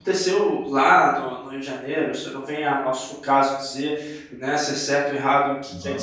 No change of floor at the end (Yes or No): Yes